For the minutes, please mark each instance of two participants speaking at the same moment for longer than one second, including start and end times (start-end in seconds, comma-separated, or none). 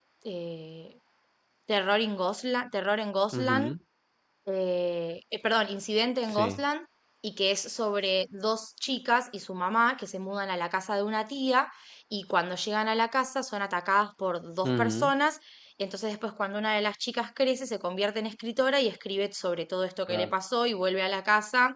none